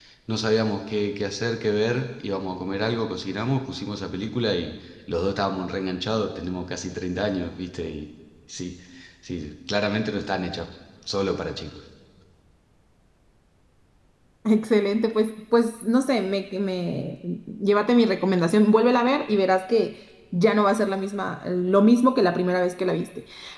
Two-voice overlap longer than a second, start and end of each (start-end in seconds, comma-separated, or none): none